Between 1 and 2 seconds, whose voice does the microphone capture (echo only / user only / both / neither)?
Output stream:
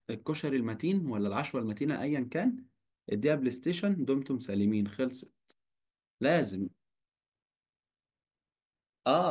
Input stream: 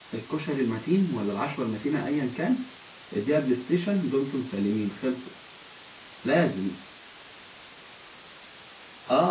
echo only